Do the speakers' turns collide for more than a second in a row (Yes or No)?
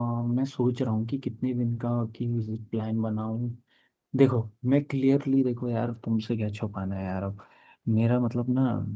No